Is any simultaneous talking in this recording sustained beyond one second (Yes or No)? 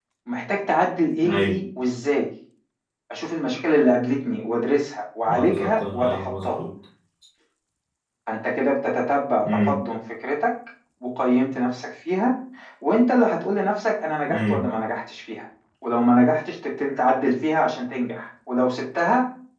Yes